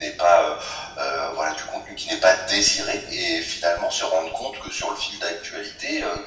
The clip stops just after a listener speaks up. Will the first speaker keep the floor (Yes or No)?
Yes